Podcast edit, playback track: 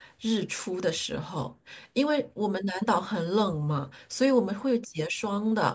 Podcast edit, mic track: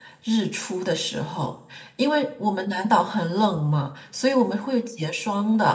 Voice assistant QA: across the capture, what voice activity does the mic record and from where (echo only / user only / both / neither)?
echo only